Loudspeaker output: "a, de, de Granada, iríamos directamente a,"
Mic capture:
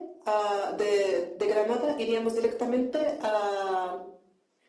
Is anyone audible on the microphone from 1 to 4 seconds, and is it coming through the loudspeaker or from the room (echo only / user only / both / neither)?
echo only